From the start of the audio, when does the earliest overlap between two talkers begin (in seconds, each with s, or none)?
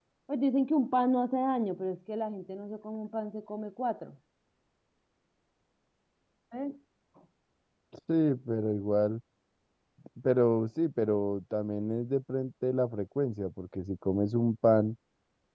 none